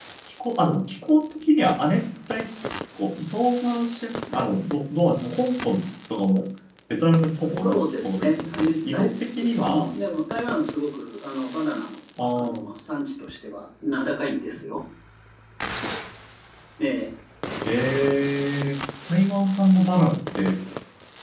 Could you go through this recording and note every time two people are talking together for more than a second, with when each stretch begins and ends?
7.5-9.9

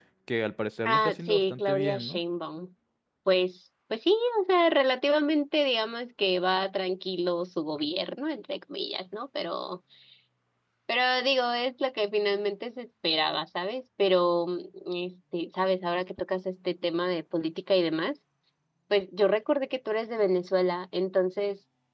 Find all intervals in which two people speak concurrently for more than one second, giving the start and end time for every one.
0.8-2.2

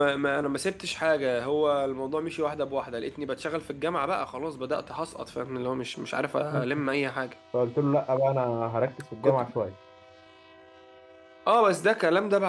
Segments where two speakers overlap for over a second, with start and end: none

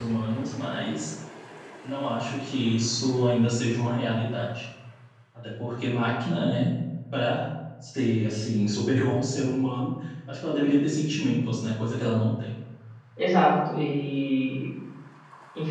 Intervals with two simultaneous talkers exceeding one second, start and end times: none

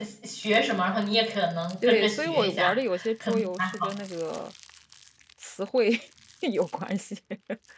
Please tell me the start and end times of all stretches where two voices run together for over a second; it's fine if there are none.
1.8-3.6

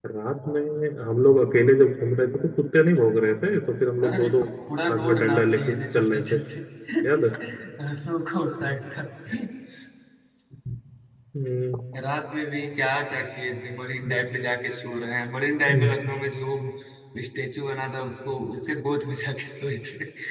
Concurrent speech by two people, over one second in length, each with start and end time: 4.9-6.4

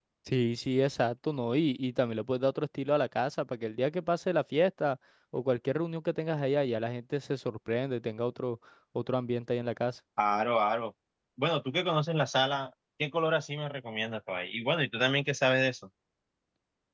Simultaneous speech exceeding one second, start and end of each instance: none

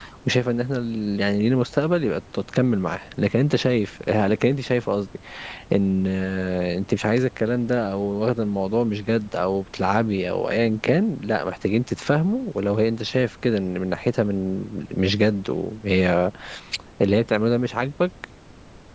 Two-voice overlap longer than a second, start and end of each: none

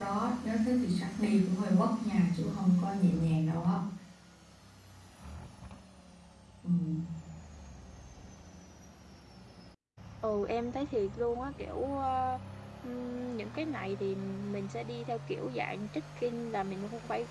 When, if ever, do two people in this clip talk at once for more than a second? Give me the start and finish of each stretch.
none

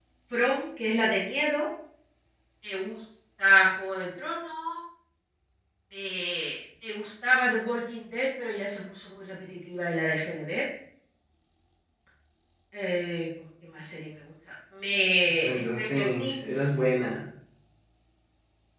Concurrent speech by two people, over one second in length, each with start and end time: 15.3-16.6

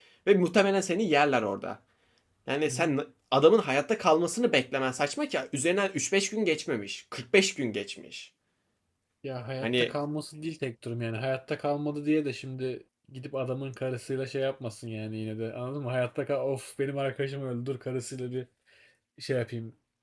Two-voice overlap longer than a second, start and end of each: none

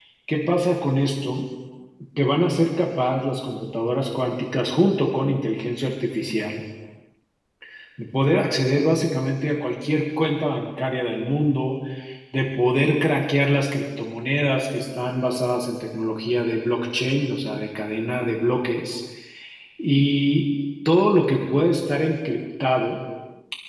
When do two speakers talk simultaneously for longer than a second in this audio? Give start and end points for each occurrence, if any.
none

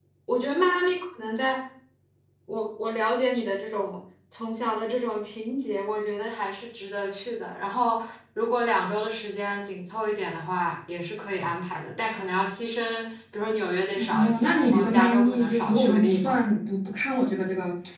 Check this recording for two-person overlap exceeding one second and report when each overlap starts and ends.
14.0-16.4

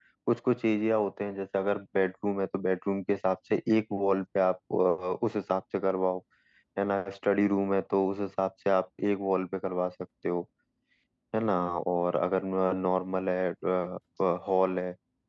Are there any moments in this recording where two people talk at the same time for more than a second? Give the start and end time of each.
none

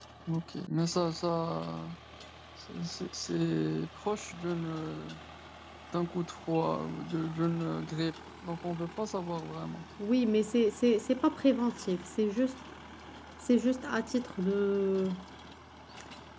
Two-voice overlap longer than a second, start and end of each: none

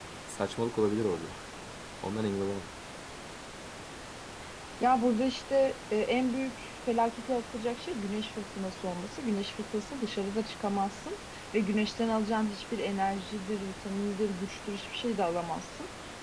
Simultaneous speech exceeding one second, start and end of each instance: none

